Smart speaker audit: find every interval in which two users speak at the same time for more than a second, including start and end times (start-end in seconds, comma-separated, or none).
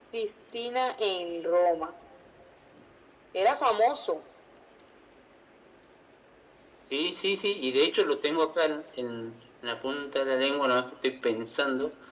none